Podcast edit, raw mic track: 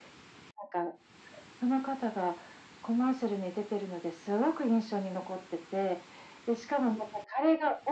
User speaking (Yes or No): No